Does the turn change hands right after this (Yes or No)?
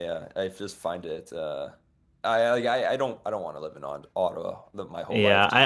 Yes